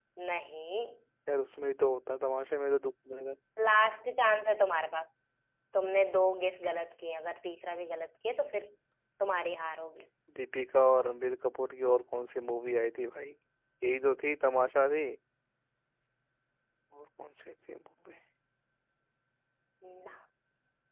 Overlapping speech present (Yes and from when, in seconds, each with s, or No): No